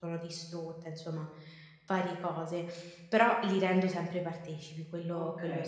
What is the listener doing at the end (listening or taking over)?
taking over